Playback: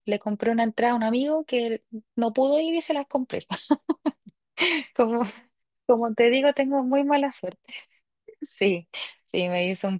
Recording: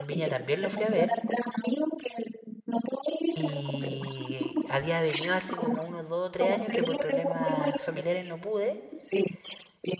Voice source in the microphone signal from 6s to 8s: both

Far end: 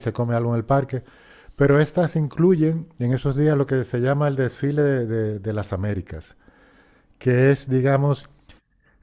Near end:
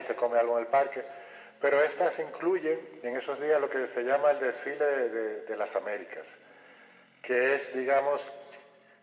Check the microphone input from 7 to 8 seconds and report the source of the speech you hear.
echo only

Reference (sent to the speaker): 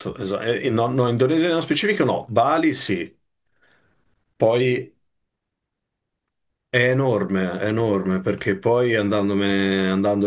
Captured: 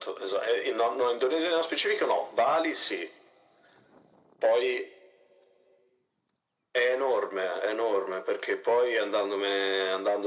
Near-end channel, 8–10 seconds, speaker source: echo only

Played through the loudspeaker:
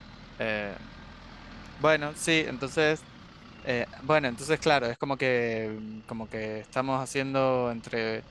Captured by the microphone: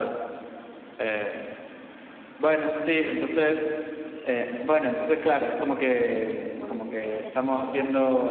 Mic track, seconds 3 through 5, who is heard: echo only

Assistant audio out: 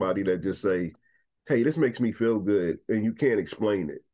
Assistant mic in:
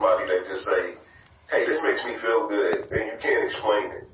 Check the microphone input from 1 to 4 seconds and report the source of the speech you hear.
echo only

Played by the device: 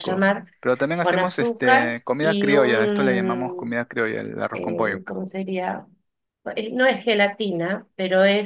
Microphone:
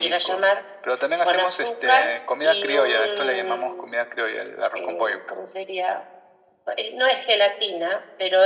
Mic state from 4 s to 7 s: echo only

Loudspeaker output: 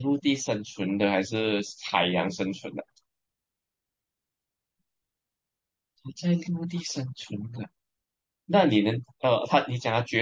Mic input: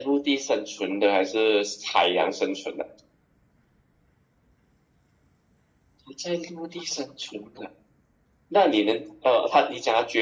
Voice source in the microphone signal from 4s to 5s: neither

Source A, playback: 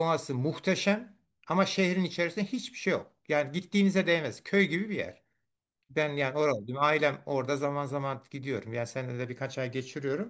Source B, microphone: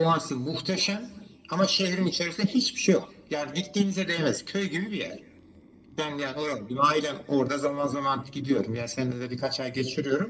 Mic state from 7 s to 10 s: echo only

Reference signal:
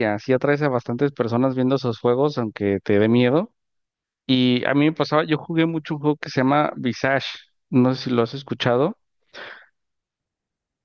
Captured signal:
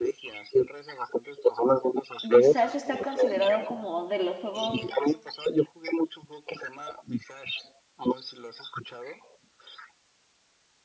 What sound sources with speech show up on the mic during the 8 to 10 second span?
echo only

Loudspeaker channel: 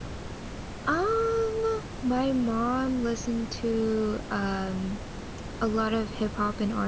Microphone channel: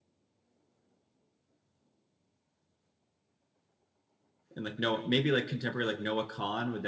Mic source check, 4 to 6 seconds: user only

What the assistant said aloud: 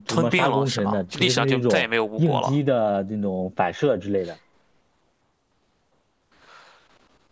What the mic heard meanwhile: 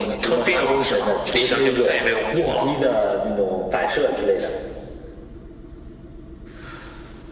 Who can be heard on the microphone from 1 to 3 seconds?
echo only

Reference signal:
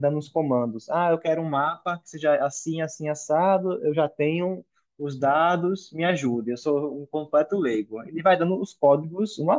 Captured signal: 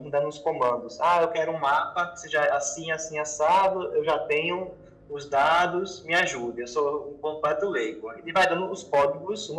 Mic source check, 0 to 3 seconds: echo only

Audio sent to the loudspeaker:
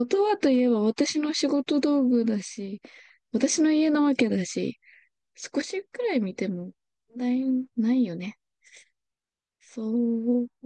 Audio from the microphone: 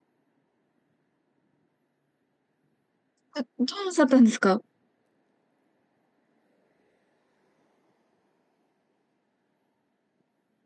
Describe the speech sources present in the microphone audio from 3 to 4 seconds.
user only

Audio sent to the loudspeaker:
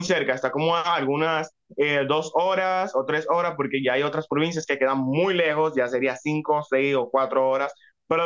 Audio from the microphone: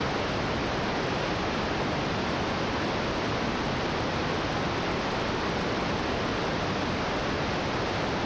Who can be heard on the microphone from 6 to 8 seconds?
neither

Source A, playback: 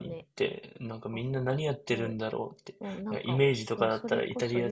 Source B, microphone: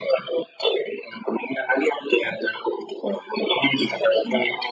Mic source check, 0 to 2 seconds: echo only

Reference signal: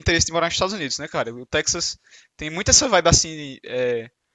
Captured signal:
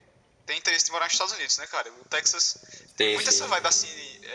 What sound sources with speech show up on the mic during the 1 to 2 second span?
echo only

